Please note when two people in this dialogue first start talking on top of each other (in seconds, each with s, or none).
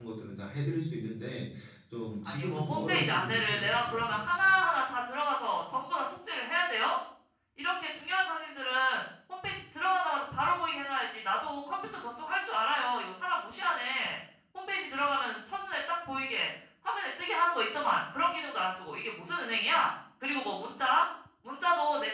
2.2 s